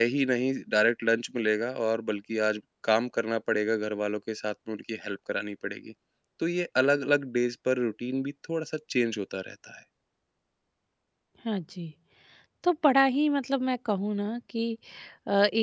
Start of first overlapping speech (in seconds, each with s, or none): none